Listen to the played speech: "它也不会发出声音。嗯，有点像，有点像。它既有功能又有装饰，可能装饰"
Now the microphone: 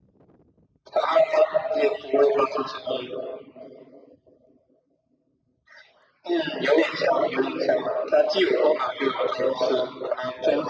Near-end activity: none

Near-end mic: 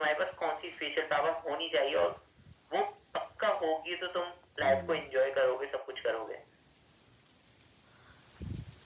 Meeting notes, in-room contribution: present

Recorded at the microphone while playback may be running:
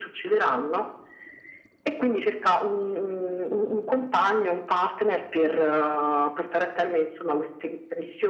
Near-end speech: none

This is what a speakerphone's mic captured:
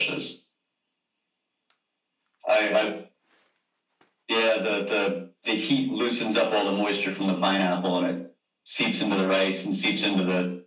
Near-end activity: none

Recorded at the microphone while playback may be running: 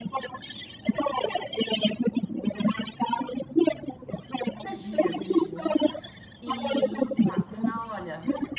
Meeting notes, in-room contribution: present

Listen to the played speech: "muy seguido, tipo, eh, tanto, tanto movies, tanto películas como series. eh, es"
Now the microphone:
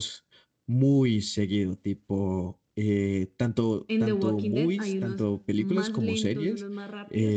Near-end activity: present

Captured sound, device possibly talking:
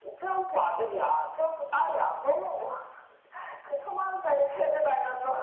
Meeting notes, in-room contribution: none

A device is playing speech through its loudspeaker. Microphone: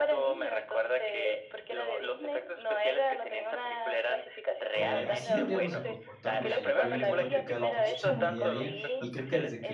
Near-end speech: present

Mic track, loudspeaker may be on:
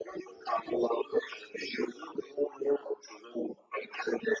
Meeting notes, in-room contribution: none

